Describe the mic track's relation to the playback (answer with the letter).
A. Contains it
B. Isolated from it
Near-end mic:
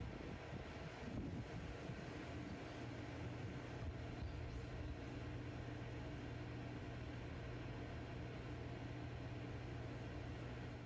B